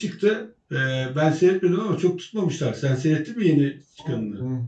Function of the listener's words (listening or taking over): taking over